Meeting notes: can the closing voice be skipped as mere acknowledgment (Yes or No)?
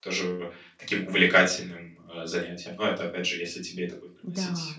No